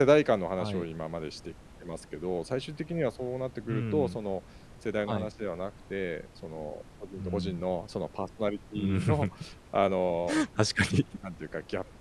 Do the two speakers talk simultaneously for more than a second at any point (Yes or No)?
No